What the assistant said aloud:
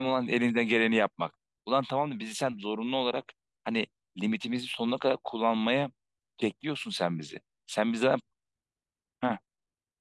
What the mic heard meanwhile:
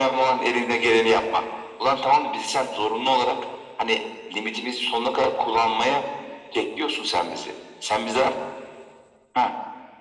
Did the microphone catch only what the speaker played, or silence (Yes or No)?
Yes